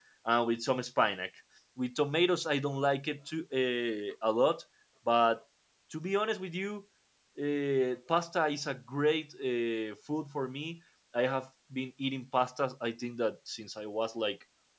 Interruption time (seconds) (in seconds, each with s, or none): none